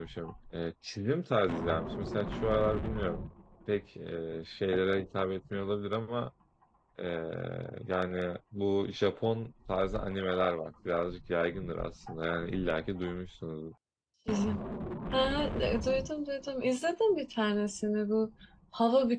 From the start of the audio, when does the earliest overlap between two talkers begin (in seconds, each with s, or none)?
none